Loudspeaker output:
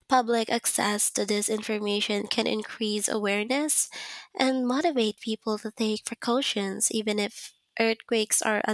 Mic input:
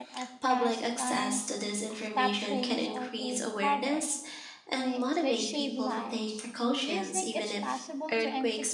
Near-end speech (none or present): present